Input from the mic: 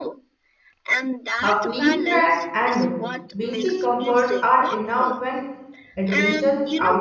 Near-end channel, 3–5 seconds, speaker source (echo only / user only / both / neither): both